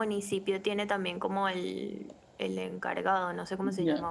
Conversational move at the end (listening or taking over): taking over